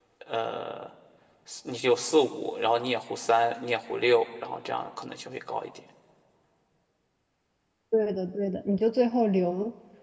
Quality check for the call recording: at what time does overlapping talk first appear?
none

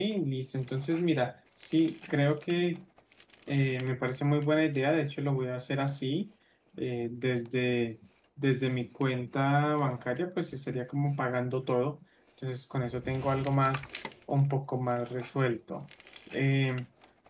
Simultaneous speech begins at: none

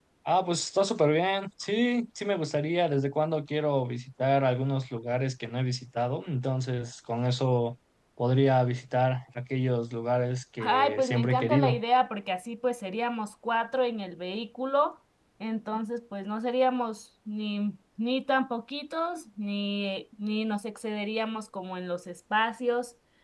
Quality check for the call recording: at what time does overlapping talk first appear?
10.6 s

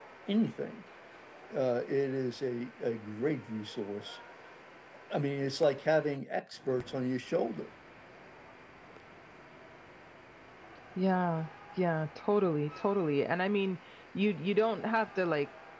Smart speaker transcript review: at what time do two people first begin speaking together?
none

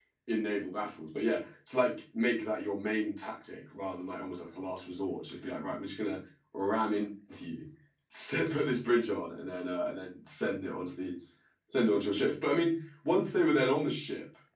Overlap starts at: none

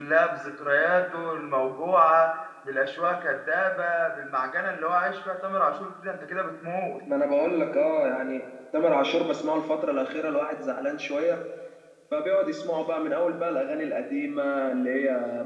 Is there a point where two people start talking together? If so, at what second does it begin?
none

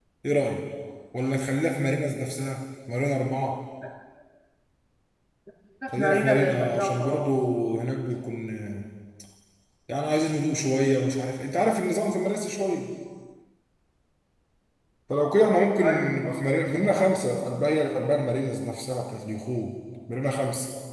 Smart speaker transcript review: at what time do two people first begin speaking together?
6.0 s

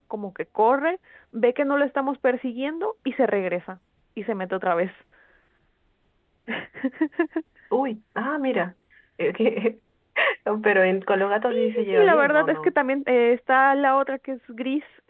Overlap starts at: 11.5 s

